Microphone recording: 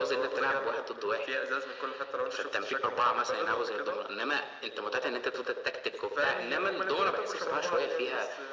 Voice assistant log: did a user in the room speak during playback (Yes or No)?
No